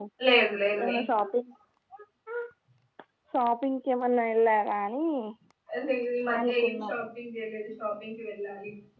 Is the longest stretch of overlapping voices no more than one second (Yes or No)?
Yes